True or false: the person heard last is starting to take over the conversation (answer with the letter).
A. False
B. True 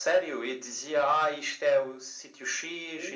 B